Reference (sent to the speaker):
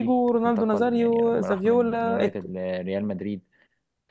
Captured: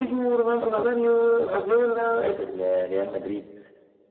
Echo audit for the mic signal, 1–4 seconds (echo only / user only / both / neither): echo only